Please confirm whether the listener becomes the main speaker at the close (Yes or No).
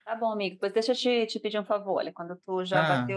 No